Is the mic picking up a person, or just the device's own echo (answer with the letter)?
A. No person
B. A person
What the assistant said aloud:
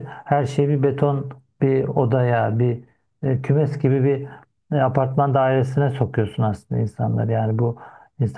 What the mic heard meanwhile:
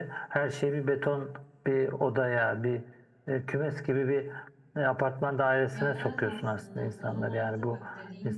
B